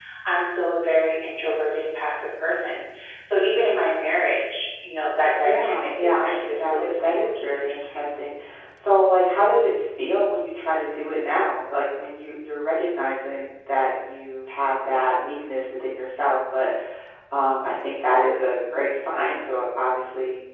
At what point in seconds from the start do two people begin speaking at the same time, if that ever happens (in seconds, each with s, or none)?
5.4 s